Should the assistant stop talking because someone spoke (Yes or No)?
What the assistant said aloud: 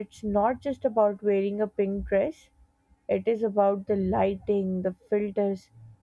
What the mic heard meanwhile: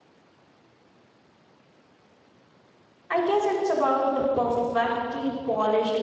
Yes